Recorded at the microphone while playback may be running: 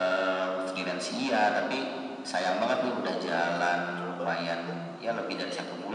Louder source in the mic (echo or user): echo